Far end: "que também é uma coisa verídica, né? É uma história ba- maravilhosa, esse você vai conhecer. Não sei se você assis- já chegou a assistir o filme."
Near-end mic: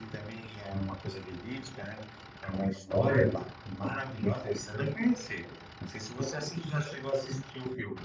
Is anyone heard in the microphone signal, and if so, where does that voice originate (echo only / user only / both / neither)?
echo only